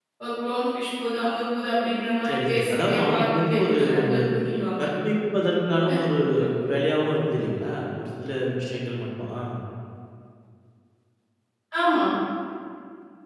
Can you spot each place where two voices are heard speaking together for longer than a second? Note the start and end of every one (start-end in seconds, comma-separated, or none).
2.3-4.1